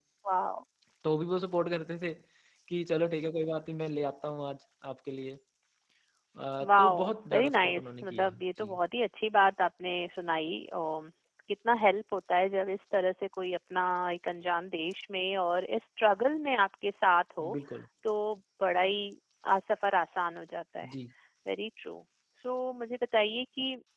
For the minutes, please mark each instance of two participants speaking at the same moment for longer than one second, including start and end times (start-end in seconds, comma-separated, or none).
6.7-8.7